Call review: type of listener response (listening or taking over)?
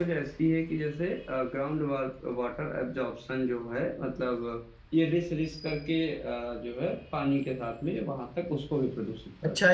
taking over